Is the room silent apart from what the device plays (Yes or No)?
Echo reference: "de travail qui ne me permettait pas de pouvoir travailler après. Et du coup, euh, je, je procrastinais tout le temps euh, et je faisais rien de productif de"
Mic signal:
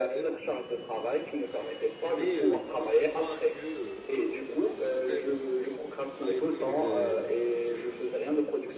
No